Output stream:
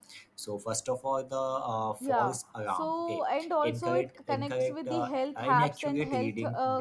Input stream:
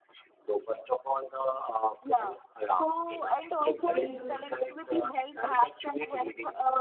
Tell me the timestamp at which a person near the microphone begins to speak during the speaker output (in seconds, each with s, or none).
3.8 s